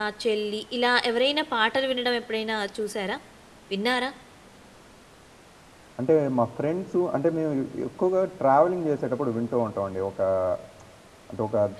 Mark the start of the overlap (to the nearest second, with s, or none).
none